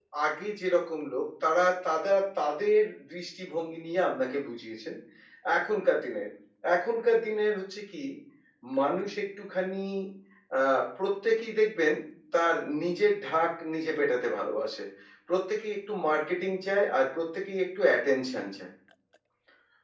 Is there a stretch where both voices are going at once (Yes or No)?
No